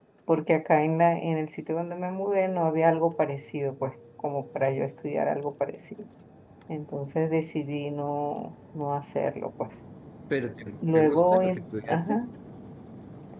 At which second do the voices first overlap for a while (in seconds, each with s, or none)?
10.9 s